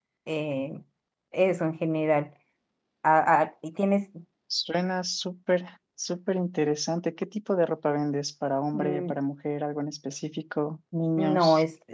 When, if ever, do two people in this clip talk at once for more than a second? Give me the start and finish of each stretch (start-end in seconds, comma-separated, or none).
none